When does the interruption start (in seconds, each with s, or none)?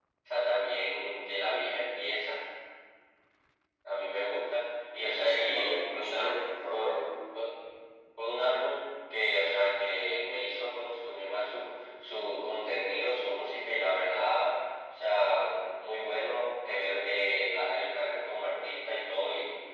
5.1 s